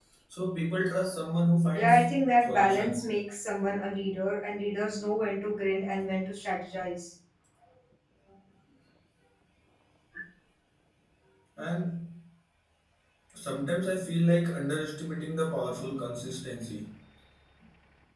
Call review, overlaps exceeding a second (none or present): present